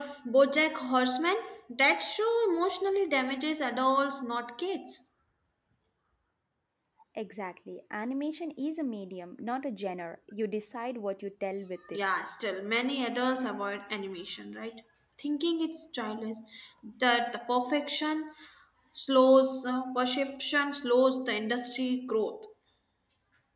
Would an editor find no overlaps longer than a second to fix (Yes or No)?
Yes